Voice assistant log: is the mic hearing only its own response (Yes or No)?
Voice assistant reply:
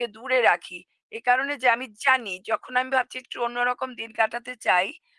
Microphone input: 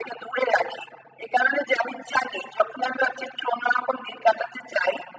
Yes